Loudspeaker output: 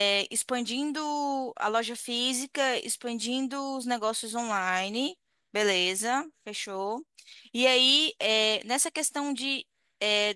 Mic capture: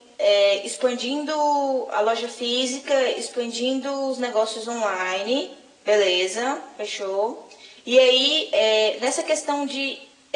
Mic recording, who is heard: echo only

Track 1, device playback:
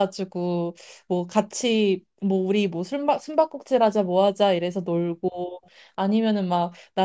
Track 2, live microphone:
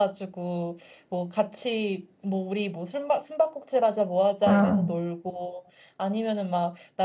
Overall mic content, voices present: both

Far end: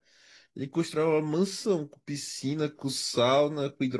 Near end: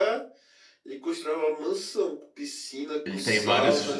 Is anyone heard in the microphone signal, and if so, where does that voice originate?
both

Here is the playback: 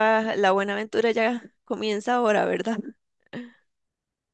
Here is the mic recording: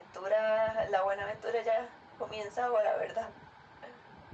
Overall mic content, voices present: echo only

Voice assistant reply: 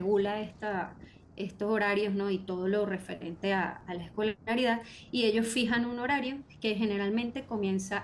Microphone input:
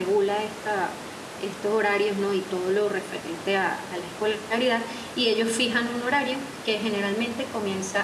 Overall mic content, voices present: echo only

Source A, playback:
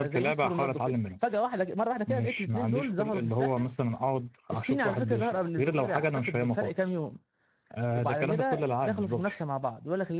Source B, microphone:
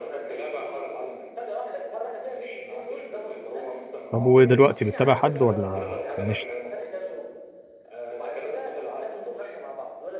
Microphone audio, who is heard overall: both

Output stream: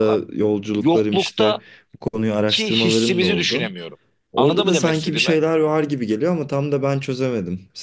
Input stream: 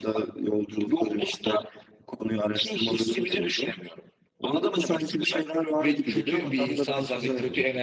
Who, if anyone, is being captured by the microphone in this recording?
both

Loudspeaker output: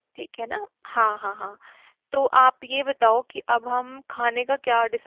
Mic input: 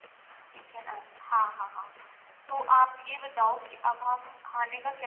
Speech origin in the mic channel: echo only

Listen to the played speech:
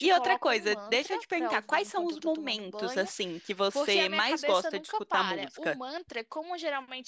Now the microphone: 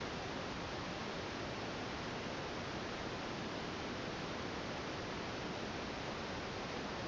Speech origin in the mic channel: neither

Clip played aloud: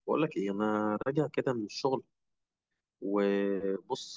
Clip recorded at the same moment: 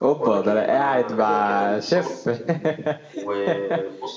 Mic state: both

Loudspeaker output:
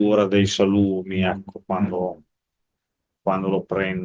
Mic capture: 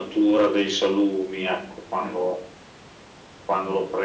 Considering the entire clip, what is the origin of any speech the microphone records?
echo only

